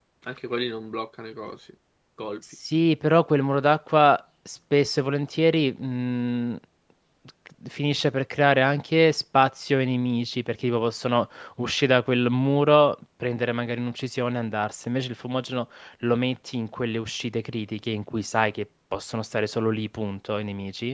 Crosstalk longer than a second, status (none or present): none